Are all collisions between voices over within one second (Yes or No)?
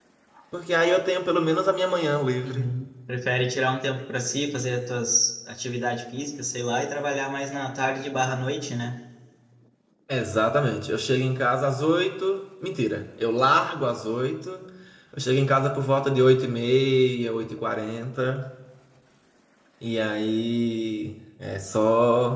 Yes